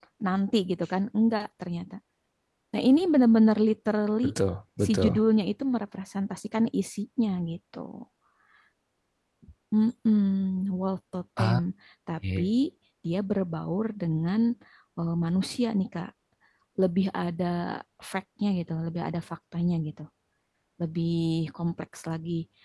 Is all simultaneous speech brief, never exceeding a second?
Yes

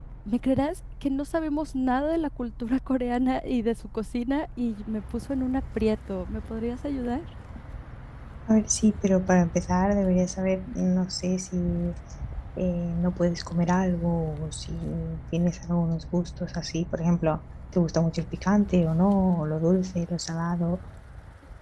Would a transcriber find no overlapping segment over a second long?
Yes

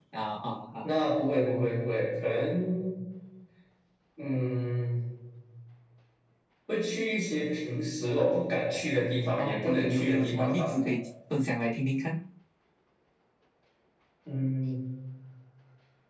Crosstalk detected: Yes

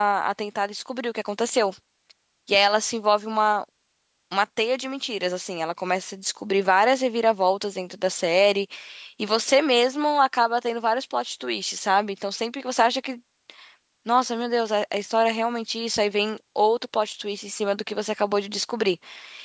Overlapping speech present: No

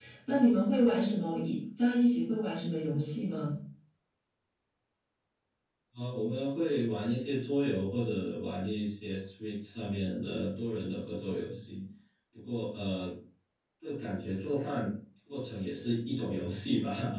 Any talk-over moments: No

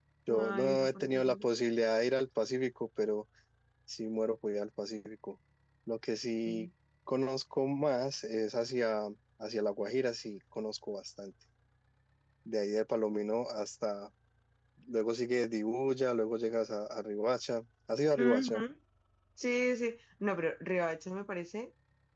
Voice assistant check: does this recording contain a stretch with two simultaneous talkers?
Yes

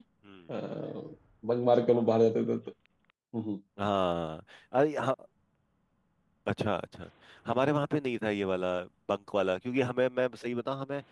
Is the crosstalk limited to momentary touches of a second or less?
Yes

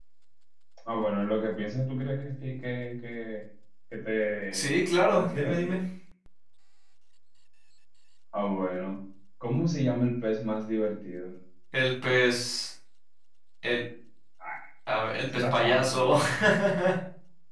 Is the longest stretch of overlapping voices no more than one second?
No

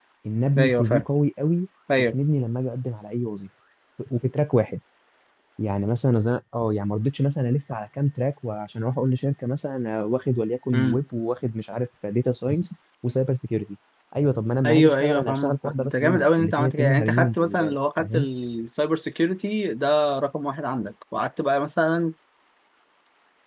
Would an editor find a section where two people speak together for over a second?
Yes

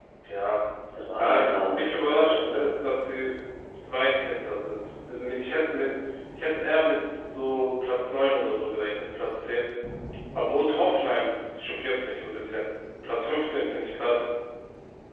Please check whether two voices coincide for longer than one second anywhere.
Yes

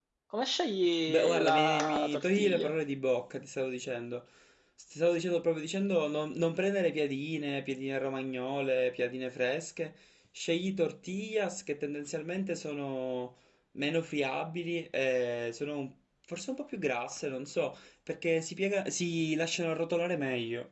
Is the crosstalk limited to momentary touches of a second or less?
No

